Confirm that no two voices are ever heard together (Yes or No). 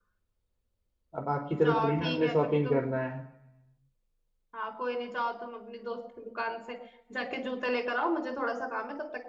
No